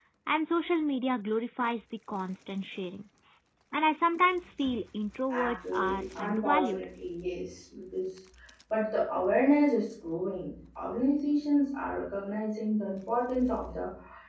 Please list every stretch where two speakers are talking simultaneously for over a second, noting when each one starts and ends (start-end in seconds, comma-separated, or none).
5.3-6.8